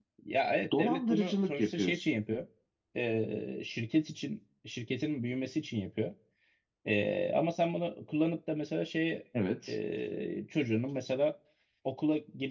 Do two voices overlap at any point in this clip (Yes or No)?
Yes